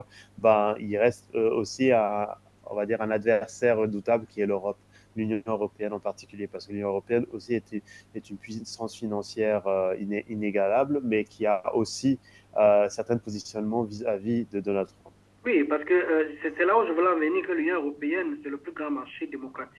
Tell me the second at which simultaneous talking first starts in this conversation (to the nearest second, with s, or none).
none